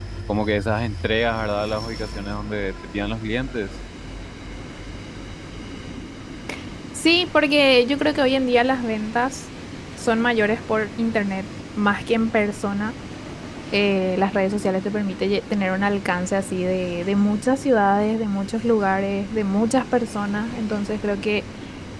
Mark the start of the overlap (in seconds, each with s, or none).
none